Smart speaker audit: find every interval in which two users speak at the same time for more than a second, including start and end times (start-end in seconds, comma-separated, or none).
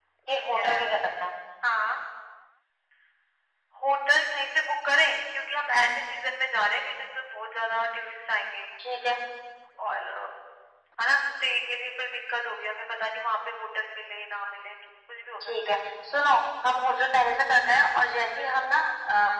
none